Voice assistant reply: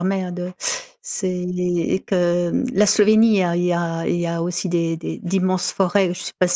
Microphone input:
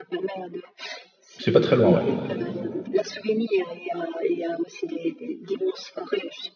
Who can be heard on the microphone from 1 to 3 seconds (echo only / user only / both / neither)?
both